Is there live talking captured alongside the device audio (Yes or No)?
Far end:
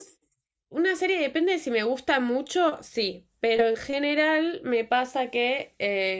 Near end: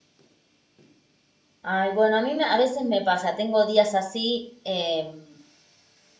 Yes